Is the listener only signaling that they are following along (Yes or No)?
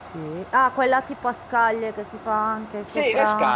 No